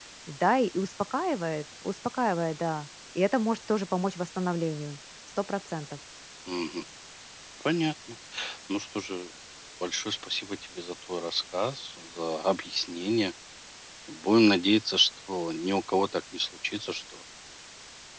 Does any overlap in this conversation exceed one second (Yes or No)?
No